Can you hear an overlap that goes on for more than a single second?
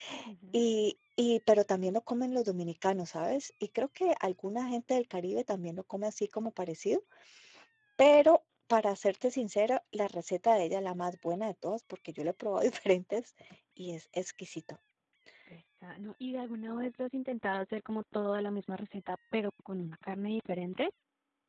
No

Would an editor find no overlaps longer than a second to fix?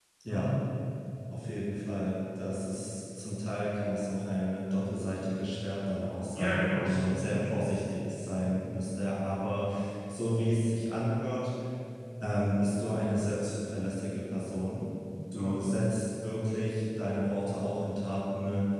No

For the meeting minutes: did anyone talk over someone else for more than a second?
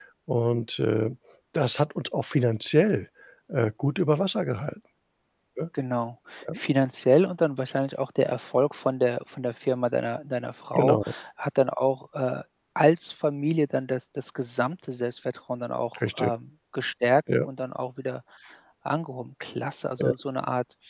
No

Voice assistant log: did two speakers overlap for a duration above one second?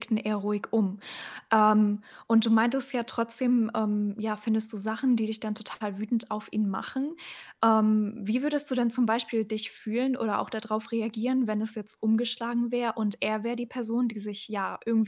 No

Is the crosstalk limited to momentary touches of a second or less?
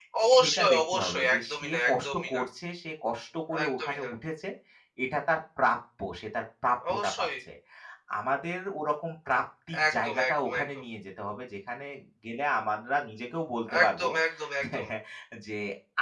No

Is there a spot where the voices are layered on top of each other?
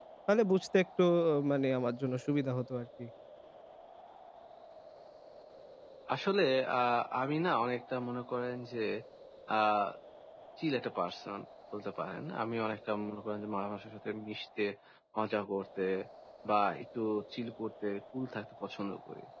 No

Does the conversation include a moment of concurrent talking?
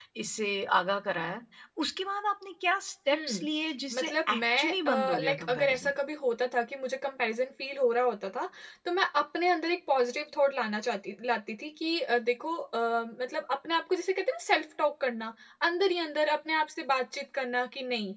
Yes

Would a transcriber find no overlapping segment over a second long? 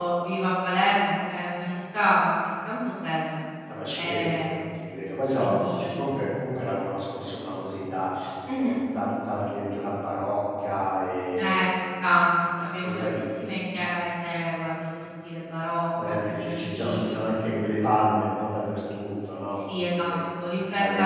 No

